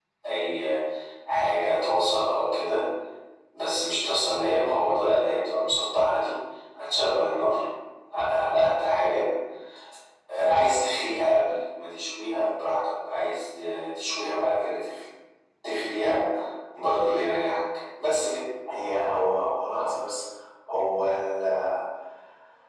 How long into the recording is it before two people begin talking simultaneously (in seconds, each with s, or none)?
none